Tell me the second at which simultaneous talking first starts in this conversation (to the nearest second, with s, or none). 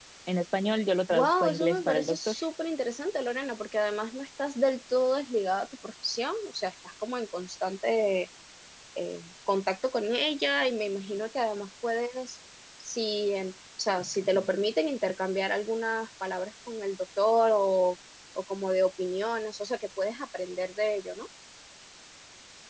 1 s